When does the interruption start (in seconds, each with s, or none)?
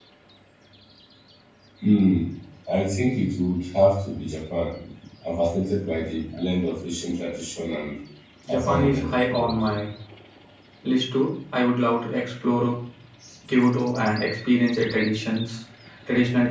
8.5 s